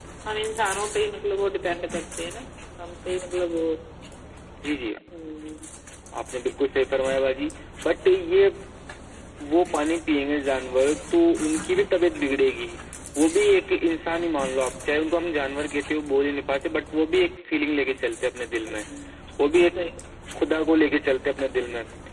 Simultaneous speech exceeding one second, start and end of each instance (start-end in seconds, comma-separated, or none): none